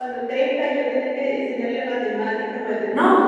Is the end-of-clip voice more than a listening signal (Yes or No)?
Yes